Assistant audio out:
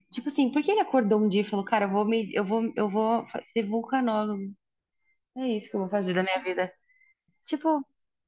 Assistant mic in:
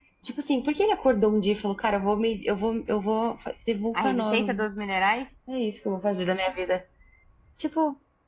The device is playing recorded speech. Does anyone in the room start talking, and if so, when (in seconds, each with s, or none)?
3.9 s